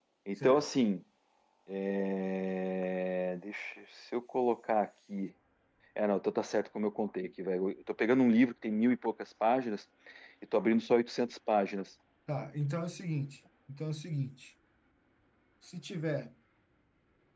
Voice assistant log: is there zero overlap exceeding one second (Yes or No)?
Yes